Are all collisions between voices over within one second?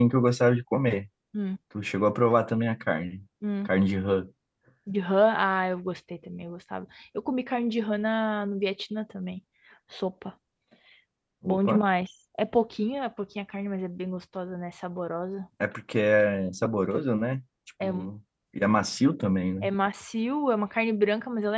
Yes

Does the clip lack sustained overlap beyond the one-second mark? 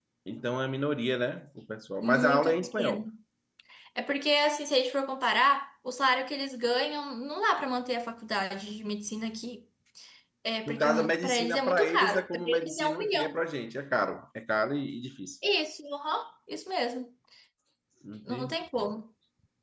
No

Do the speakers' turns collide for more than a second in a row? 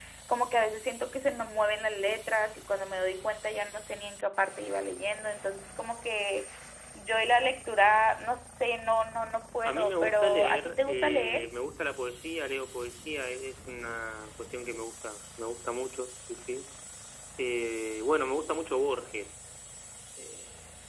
Yes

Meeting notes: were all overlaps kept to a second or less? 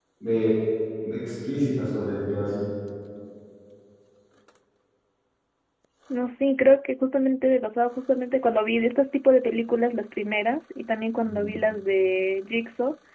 Yes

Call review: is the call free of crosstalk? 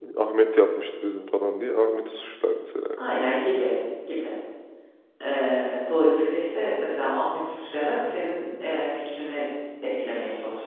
Yes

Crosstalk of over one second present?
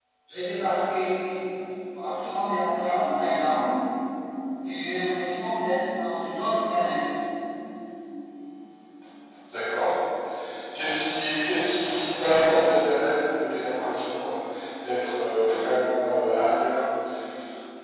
No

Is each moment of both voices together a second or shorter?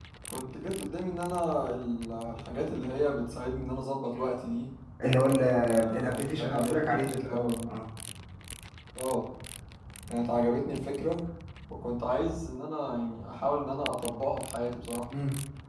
No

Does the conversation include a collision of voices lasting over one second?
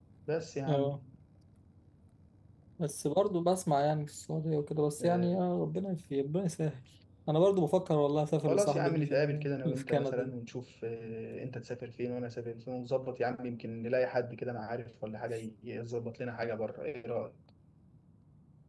Yes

